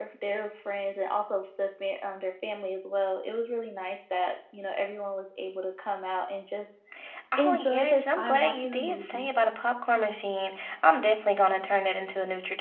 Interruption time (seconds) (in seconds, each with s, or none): 7.4 s